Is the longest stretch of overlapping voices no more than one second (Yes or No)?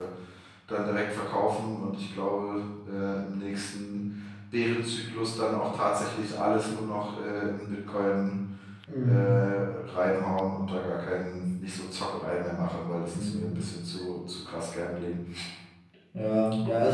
Yes